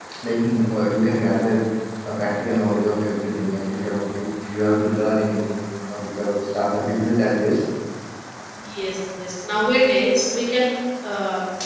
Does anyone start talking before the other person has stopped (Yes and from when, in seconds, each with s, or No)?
No